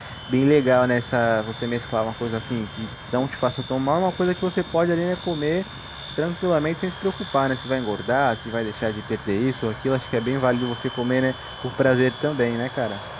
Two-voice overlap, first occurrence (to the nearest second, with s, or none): none